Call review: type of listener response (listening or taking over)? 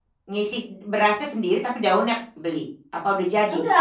taking over